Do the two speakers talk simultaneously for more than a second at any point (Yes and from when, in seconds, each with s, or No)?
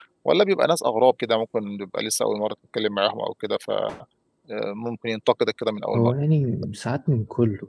No